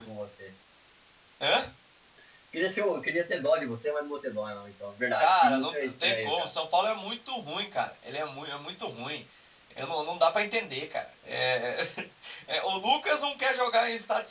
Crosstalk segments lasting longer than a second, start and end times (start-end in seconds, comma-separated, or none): 5.2-6.5